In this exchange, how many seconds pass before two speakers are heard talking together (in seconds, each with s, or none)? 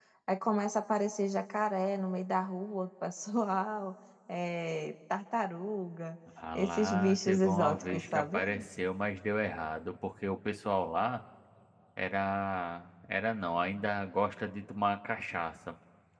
6.4 s